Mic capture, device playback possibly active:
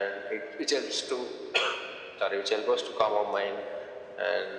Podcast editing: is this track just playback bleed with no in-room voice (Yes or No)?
Yes